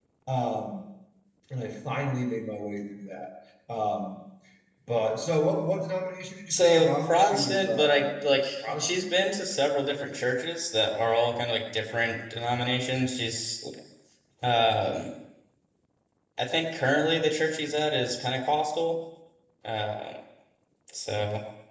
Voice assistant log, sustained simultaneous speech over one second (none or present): present